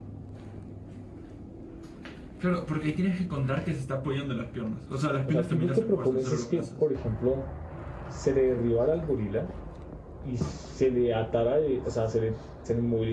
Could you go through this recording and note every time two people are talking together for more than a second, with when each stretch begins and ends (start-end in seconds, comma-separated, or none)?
5.3-6.6